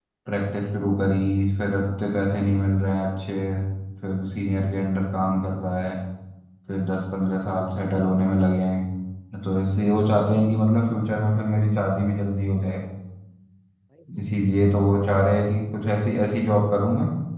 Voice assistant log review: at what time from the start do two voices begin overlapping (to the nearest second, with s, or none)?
none